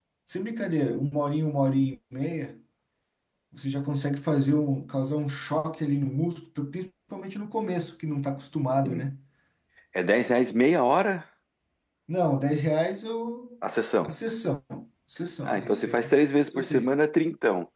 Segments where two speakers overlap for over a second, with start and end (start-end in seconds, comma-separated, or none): 15.4-16.9